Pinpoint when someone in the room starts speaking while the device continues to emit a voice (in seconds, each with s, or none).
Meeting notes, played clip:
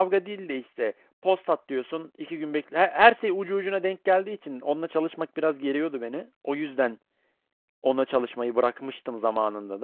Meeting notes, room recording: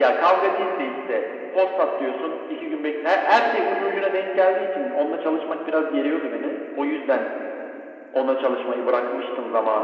none